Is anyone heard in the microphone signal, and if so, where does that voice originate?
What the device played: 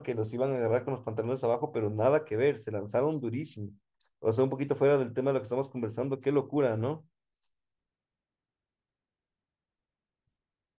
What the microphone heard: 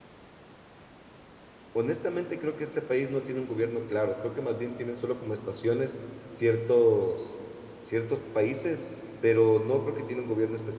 user only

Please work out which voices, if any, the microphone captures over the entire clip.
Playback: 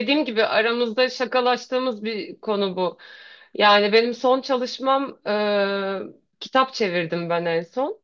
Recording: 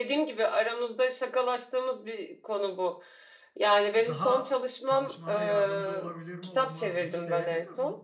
both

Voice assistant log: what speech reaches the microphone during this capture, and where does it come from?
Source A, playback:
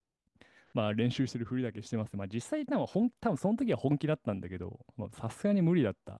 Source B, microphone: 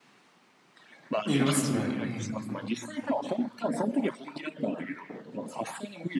both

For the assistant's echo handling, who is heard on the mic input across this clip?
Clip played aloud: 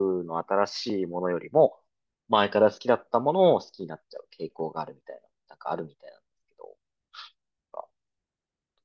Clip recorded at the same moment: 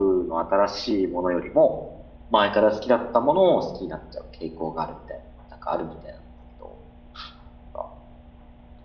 echo only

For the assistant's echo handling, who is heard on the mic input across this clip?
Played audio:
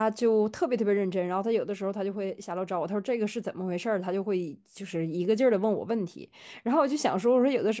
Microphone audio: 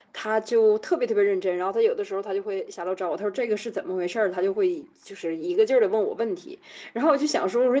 echo only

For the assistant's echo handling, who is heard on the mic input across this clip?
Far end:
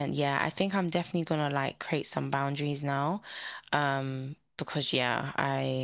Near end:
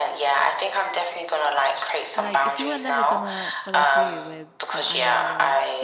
both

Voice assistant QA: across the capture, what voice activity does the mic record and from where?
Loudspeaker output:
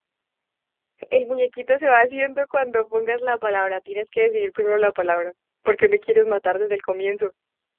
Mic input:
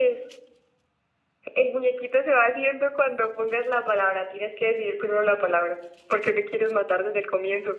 echo only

